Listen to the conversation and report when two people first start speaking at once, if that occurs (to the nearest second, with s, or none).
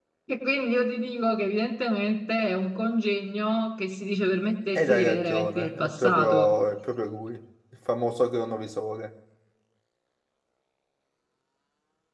5 s